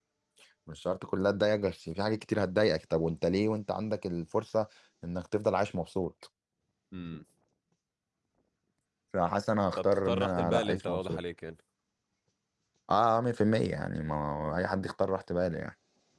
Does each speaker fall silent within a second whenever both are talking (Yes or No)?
No